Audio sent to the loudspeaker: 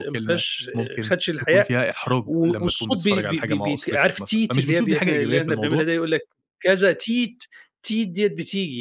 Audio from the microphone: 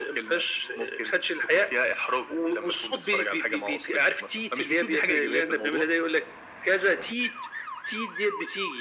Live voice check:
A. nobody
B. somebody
A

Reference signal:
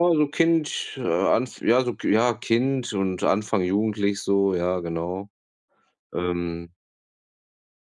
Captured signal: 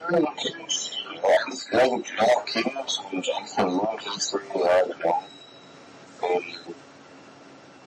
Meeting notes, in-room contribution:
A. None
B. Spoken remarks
A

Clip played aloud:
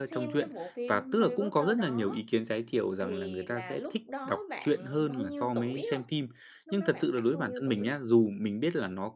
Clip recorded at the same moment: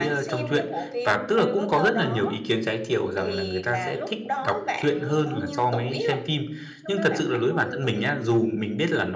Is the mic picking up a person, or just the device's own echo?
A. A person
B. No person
B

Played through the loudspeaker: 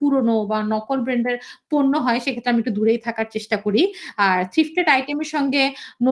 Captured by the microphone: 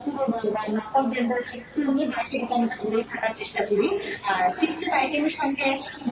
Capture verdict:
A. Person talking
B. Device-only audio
B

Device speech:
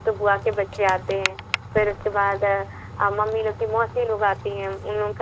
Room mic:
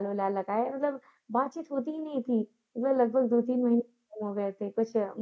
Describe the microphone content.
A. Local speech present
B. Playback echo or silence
A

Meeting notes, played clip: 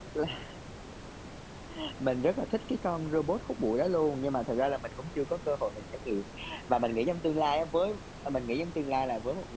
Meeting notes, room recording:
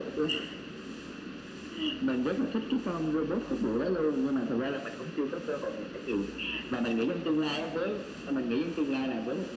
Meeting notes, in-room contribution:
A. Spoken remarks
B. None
B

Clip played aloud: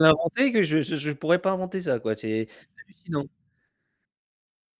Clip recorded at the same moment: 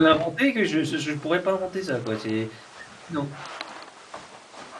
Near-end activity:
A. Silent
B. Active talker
A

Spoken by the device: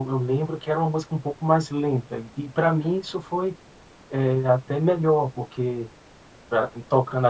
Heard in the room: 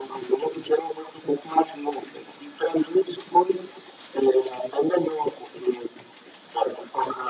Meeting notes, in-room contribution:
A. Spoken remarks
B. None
B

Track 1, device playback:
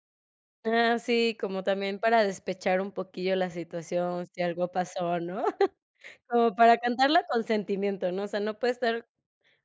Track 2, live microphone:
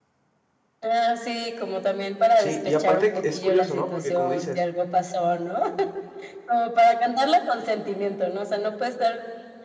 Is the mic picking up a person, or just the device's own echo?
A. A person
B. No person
A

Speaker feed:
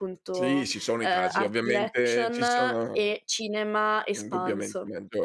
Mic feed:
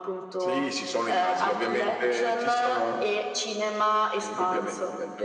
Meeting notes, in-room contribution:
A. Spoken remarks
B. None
B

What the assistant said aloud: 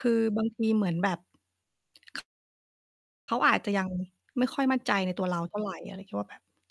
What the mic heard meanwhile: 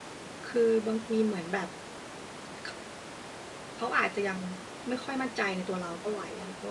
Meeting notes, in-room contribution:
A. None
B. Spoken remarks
A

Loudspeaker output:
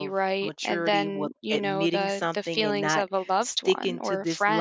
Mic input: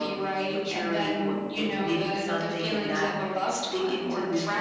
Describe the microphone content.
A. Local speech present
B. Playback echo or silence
B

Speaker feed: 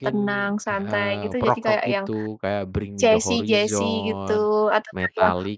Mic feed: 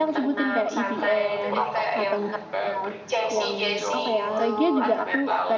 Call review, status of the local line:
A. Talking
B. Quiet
A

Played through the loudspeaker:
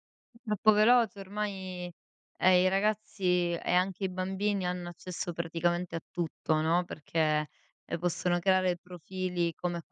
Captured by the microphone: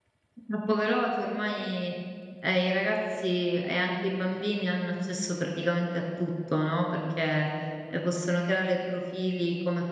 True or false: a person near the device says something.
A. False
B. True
A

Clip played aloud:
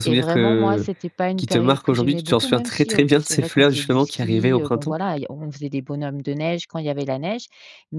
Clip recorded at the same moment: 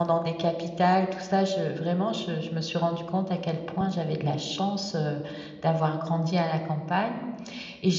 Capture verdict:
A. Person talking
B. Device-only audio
A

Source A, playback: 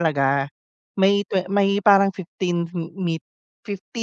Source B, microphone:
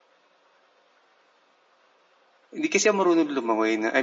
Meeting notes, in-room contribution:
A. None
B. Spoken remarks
B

